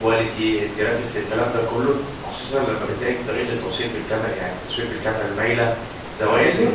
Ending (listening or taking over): listening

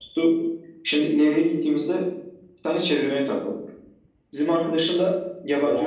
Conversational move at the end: taking over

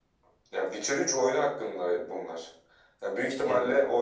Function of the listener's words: listening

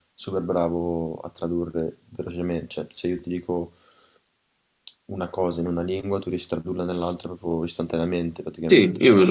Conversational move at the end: taking over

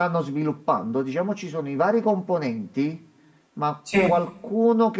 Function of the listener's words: listening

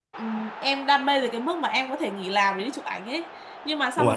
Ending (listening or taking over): listening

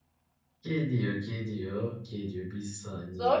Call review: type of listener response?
taking over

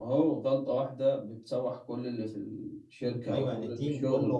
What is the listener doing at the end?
taking over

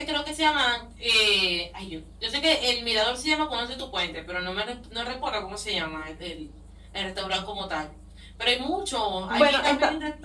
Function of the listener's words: listening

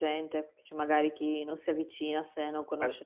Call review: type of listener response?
taking over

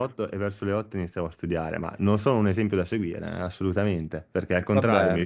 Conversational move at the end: listening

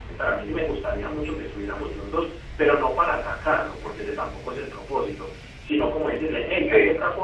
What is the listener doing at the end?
listening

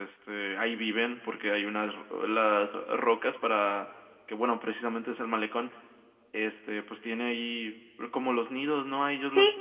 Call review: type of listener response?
listening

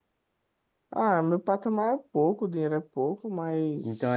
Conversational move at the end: taking over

